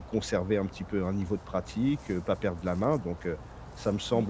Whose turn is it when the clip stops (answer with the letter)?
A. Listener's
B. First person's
B